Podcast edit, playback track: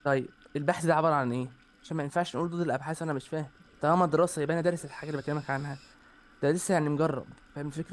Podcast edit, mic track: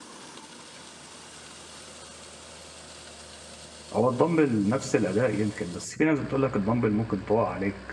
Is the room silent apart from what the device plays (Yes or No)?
No